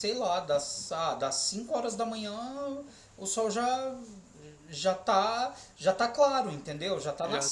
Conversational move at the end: taking over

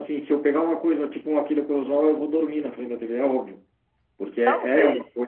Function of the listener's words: taking over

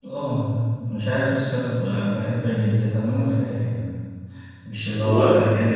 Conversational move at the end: listening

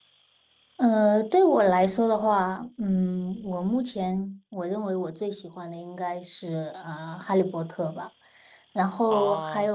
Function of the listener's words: listening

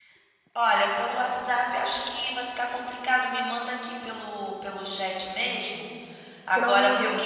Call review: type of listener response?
listening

